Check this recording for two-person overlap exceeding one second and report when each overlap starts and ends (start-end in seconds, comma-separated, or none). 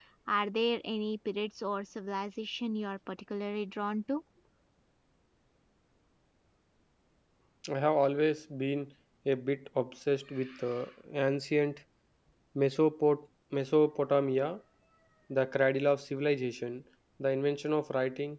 none